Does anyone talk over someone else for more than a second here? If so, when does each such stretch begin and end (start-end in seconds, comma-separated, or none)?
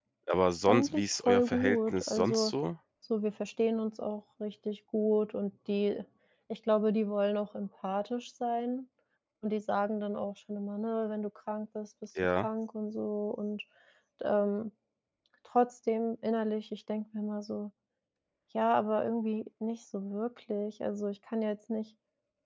0.7-2.5